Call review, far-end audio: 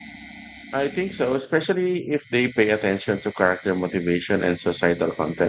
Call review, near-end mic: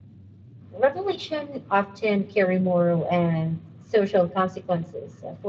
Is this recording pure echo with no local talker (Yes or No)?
No